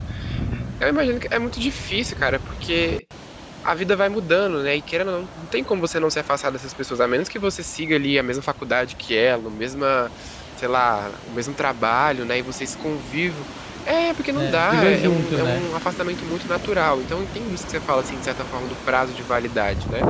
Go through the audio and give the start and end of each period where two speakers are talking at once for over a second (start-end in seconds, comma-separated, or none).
14.3-15.7